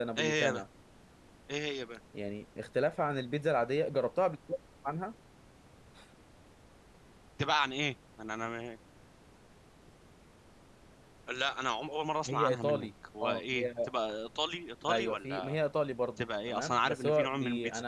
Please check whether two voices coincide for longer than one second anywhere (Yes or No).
Yes